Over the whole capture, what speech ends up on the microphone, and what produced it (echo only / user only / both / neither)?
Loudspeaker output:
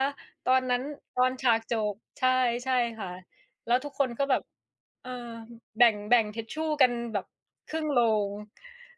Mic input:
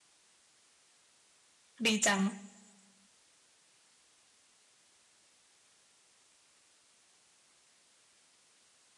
user only